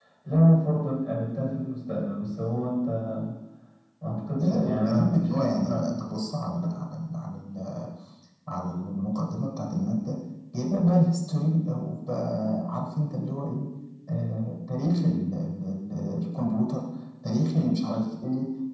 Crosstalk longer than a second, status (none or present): present